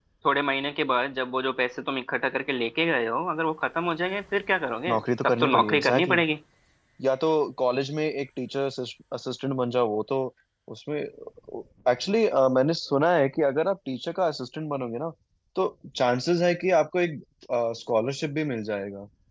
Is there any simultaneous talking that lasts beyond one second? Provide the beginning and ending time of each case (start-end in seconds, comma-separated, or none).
4.9-6.2